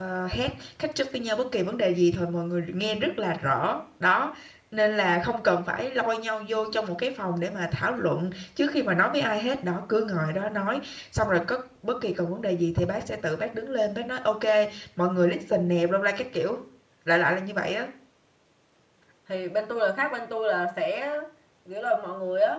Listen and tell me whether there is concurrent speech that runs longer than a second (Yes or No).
No